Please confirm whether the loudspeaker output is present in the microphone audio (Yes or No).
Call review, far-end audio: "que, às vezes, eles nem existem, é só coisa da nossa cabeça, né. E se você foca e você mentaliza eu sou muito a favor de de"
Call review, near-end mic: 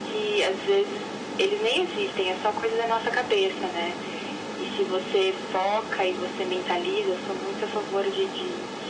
Yes